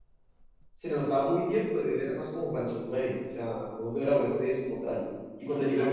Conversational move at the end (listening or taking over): listening